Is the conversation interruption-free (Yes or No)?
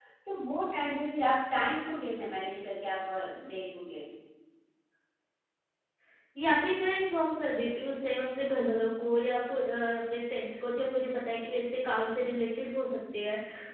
Yes